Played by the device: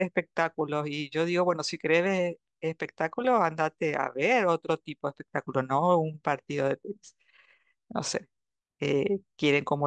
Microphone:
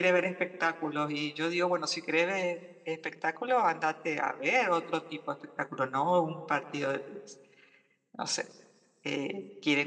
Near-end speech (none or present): none